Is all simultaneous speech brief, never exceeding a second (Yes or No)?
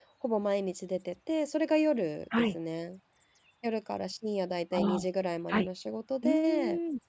Yes